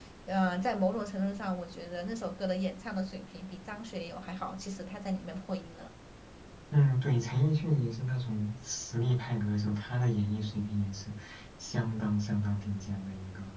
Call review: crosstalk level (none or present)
none